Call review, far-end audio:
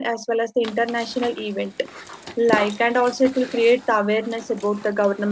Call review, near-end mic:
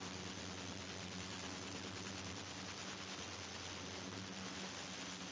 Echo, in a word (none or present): none